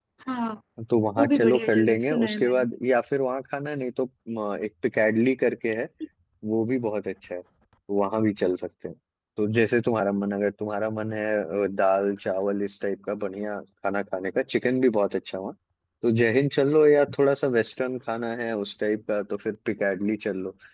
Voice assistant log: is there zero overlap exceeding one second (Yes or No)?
No